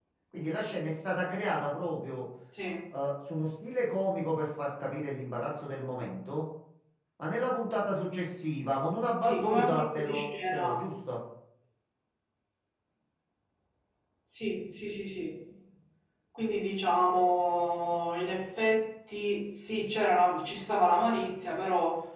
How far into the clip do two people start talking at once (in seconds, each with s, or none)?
9.2 s